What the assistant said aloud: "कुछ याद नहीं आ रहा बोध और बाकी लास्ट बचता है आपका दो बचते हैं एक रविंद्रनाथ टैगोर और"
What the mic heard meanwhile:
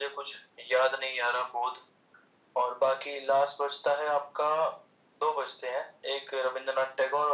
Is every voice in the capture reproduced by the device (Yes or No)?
Yes